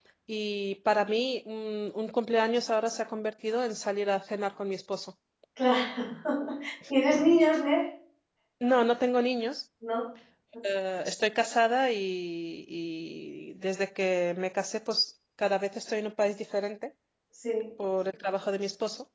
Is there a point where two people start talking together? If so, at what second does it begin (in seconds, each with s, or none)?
none